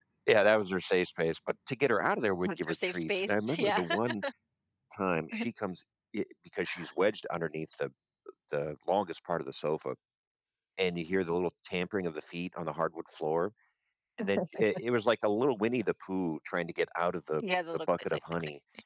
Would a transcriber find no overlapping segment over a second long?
No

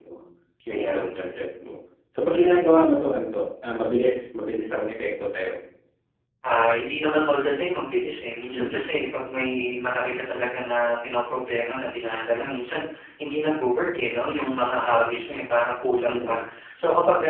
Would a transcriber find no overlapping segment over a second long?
Yes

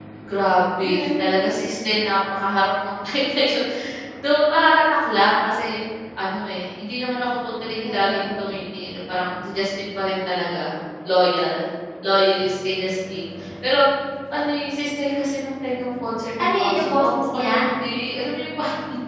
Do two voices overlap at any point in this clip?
Yes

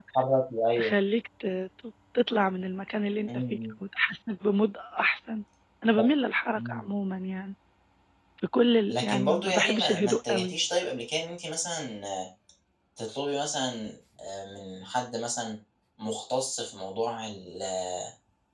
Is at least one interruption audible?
Yes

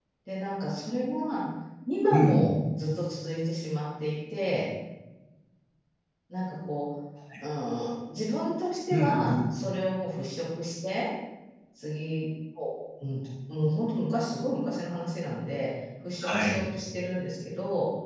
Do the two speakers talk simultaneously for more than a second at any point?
No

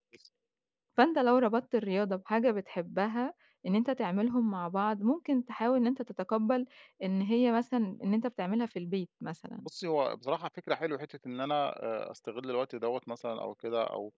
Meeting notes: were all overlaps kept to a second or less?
Yes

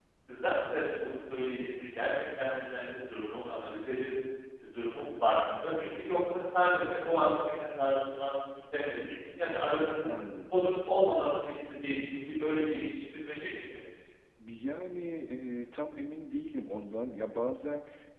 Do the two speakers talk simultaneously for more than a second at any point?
No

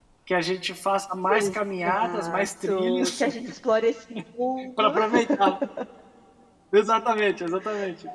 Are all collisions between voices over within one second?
No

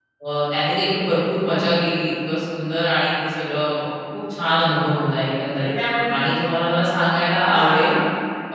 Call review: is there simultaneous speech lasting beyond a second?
No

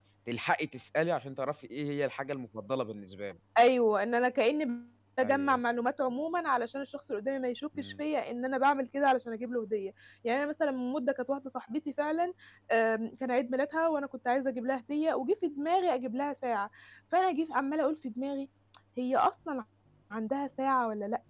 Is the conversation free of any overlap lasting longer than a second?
Yes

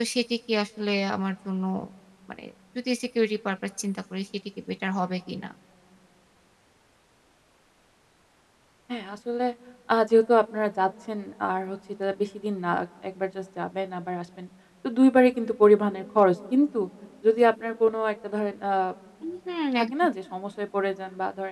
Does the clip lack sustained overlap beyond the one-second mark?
Yes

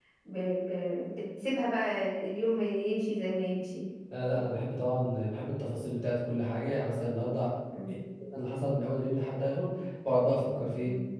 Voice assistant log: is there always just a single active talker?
Yes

